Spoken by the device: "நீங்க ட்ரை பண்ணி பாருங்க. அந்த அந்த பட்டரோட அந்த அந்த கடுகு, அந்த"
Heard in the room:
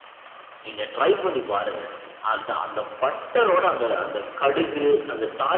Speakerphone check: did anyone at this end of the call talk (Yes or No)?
No